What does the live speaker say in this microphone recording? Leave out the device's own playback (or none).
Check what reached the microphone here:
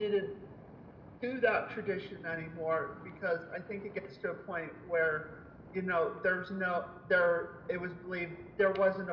none